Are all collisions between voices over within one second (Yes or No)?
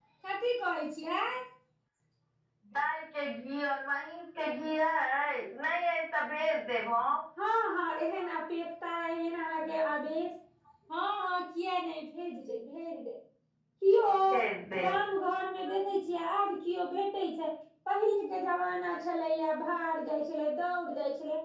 Yes